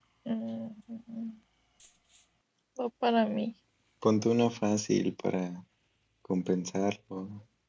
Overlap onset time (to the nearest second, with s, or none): none